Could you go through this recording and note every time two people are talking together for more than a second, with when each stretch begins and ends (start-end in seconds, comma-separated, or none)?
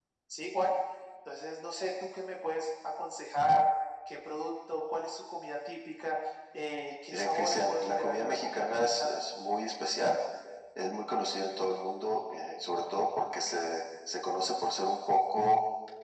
7.1-9.2